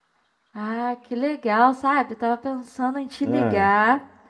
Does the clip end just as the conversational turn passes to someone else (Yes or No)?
No